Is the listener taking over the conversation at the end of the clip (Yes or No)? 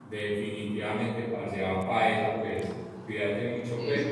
No